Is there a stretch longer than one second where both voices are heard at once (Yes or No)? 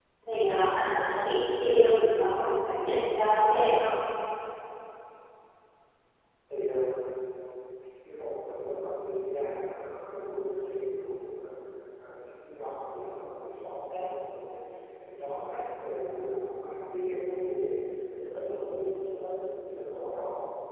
No